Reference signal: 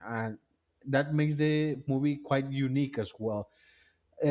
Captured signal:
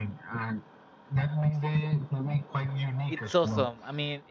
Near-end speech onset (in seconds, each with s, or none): 3.0 s